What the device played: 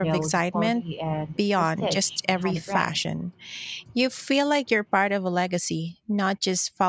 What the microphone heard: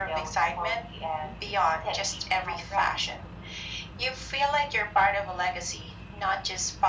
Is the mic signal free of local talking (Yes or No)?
Yes